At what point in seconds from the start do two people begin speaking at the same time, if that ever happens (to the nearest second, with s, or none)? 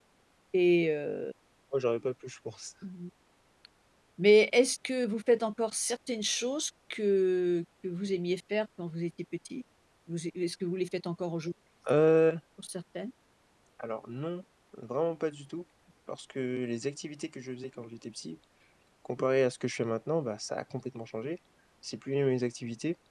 none